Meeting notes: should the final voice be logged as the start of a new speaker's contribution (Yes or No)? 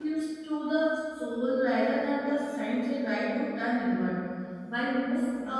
No